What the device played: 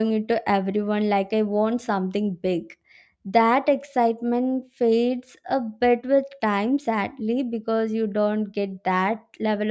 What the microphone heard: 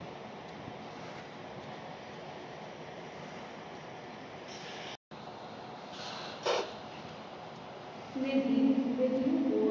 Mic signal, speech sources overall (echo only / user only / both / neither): user only